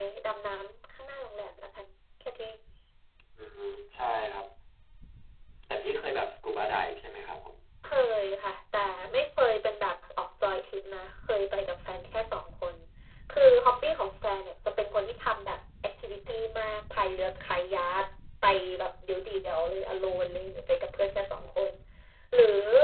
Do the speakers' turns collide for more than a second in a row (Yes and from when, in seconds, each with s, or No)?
No